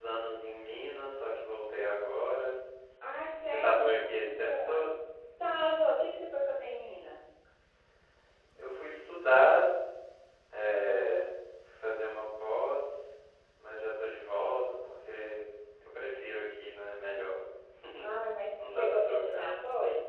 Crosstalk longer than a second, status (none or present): present